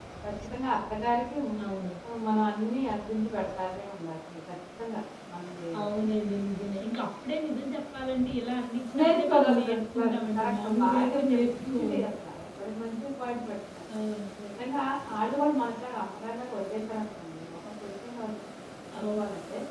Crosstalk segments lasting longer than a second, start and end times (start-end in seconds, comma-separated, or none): 9.0-12.0